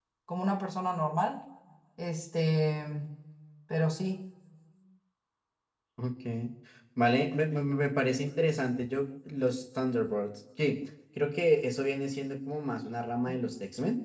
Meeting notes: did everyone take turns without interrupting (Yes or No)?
Yes